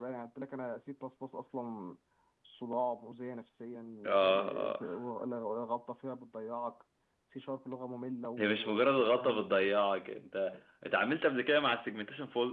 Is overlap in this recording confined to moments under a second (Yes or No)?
No